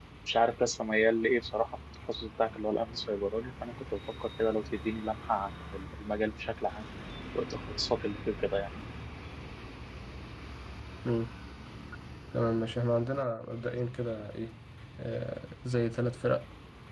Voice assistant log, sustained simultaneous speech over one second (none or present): none